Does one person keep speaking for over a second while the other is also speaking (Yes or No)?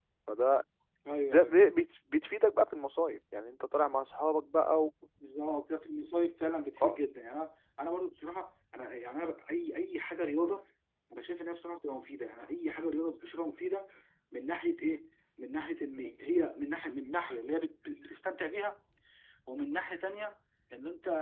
No